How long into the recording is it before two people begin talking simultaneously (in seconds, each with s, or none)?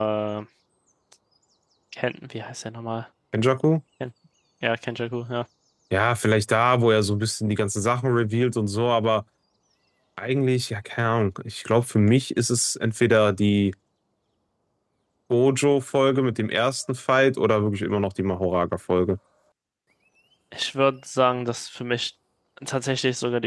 none